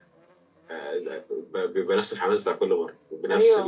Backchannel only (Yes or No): No